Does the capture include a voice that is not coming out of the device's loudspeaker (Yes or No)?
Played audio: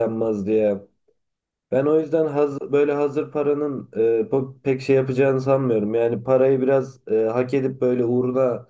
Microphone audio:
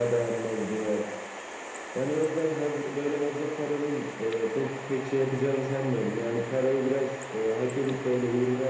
No